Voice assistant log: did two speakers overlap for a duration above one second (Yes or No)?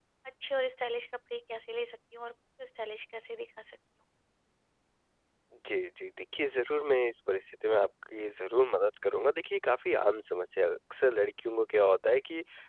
No